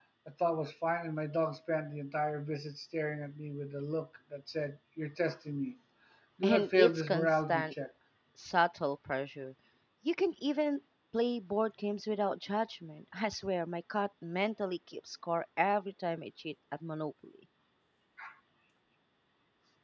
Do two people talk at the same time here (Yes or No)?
Yes